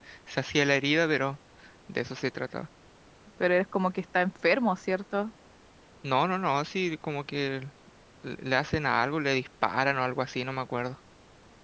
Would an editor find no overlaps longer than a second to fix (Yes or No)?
Yes